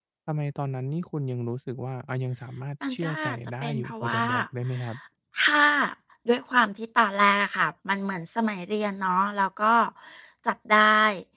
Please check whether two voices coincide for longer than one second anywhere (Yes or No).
Yes